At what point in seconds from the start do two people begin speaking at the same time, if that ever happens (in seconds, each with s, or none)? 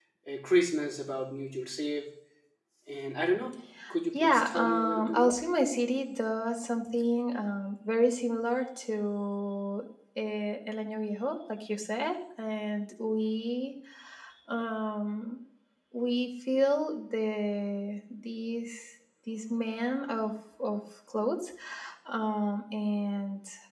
4.1 s